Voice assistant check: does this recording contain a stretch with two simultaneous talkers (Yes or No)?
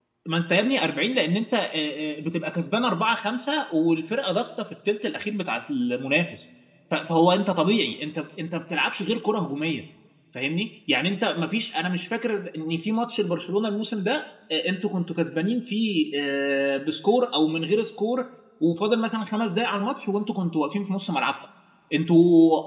No